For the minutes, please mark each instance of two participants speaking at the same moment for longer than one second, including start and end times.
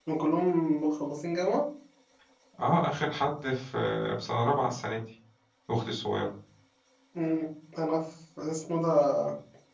none

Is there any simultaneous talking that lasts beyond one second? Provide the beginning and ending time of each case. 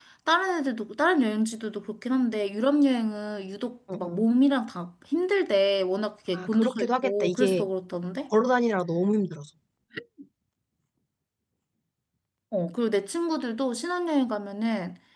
6.3-7.7

